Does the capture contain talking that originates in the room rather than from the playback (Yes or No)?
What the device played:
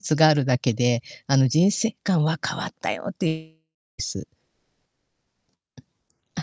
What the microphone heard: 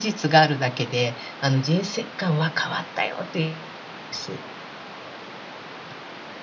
No